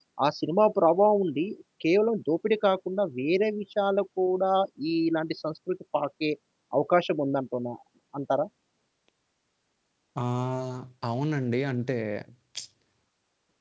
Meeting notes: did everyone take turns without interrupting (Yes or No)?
Yes